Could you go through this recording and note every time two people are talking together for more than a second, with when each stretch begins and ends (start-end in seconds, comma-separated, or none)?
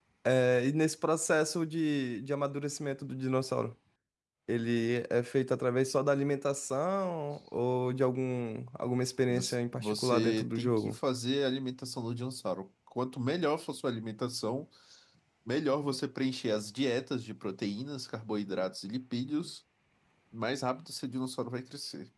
9.3-11.0